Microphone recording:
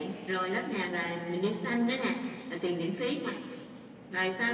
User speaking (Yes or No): No